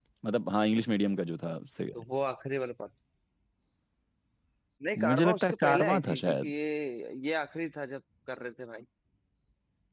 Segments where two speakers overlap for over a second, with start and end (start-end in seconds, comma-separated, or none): 5.0-6.5